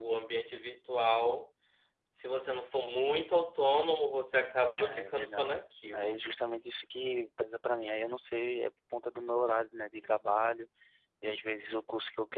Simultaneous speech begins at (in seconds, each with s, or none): 4.8 s